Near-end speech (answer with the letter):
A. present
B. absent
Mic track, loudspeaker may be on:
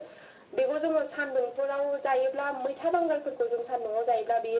B